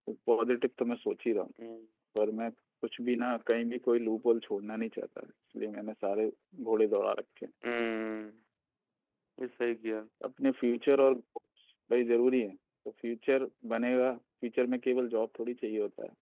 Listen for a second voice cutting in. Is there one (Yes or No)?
No